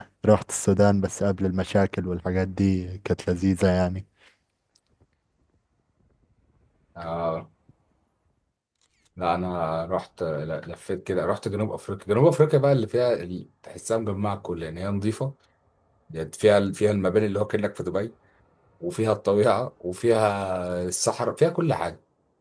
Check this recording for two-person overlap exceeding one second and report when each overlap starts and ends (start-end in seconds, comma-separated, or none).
none